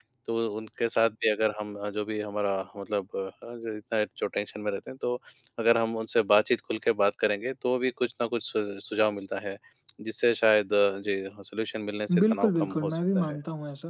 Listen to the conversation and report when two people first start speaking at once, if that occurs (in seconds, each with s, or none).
12.1 s